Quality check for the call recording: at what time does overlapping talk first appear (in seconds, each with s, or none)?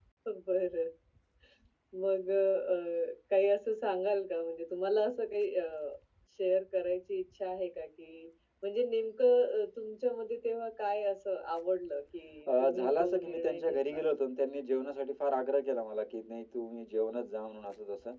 12.5 s